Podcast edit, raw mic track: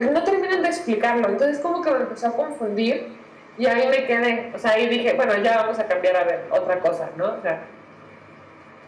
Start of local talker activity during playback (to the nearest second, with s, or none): none